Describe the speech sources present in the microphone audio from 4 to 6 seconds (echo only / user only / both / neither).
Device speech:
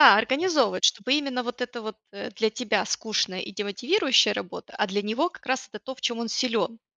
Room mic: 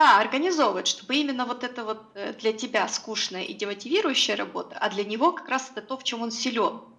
echo only